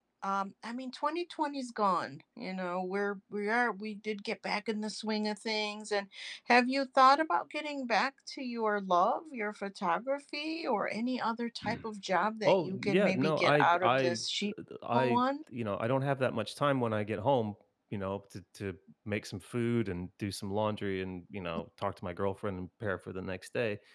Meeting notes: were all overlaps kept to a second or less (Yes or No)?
No